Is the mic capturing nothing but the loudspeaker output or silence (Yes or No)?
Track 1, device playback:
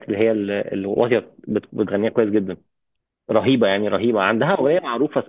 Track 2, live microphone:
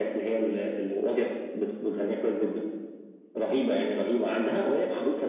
Yes